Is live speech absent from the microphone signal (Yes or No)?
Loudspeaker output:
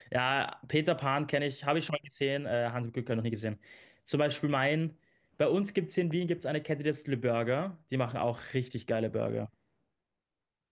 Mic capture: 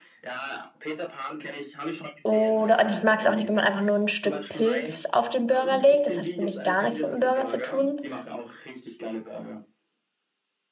No